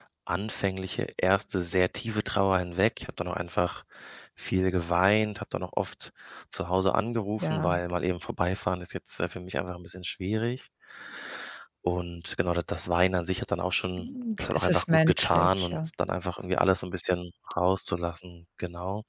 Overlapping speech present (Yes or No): Yes